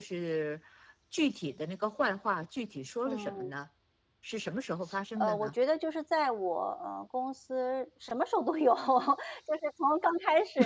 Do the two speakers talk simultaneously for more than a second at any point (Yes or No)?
No